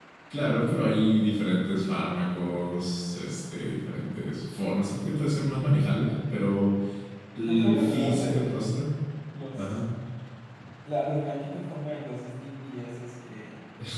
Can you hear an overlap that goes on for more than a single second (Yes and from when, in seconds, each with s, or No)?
Yes, from 7.5 s